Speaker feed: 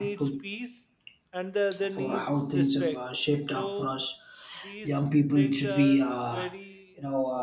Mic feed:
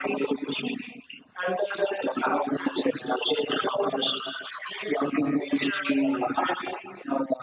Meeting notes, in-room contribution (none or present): none